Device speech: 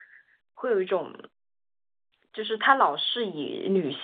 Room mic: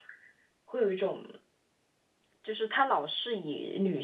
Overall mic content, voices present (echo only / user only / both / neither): echo only